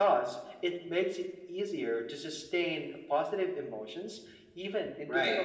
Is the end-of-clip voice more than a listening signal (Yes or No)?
Yes